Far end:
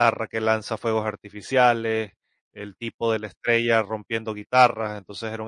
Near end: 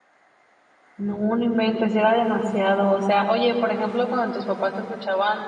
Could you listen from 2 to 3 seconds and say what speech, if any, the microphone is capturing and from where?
user only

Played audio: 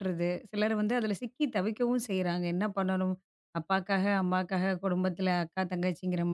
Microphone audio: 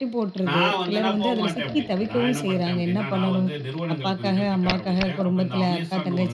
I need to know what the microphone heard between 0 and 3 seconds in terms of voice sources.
both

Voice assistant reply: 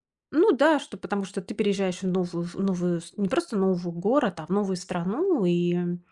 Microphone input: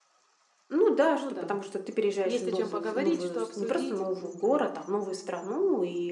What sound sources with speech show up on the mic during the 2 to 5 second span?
both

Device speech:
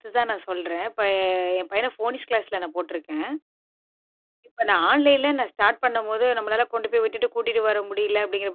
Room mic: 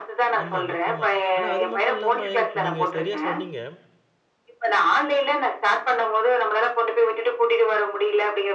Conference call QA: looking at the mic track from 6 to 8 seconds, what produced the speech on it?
echo only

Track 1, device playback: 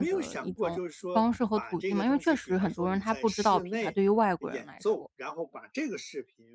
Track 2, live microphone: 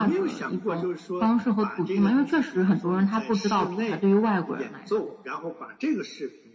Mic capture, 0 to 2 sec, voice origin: echo only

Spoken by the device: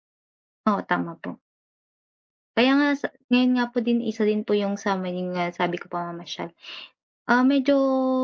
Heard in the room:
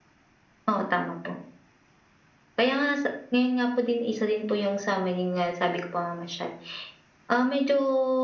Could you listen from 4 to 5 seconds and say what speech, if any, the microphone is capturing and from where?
echo only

